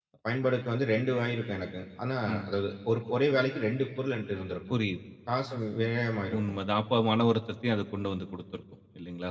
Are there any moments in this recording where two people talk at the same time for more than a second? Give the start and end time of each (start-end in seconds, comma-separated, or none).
none